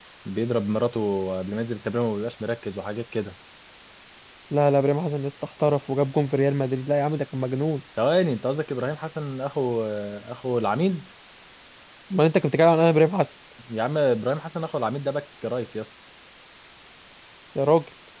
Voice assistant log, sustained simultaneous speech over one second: none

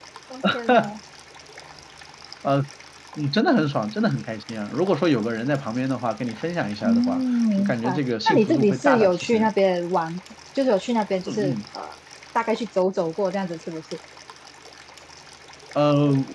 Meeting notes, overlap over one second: present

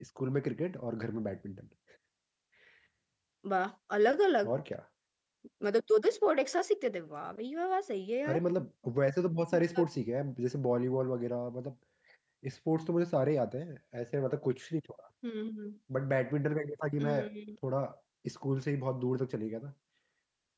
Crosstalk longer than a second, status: none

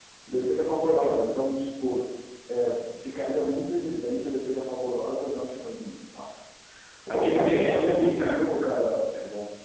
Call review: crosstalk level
present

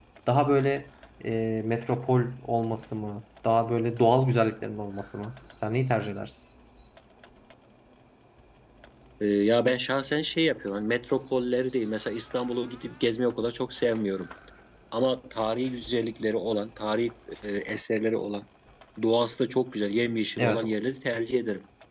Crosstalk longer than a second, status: none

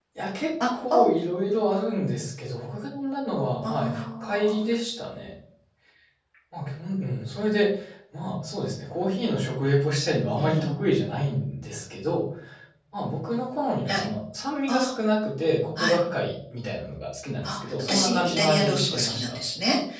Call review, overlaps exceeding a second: present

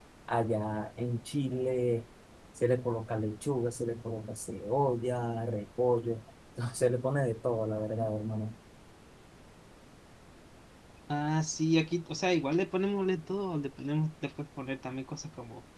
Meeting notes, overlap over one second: none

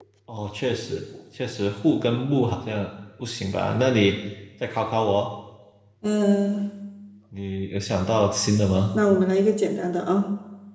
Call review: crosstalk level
none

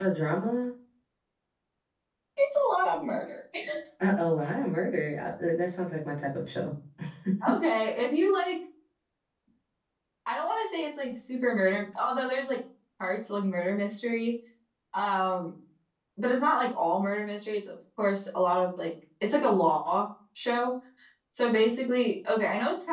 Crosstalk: none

